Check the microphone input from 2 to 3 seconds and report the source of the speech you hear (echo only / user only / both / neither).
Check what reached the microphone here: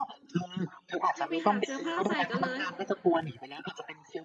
both